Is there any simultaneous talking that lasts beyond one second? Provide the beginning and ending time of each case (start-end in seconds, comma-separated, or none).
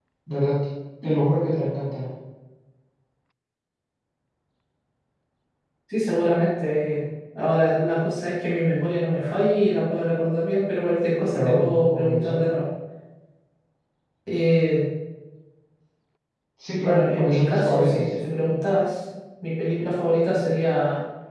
11.2-12.4, 16.8-18.0